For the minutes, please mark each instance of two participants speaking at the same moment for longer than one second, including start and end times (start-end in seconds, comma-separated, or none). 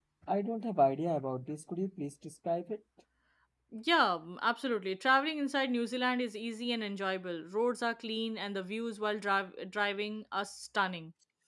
none